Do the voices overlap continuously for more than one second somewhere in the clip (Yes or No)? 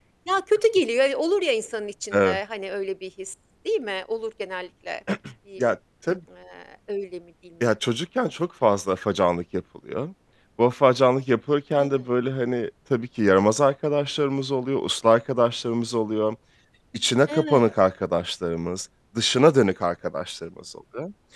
No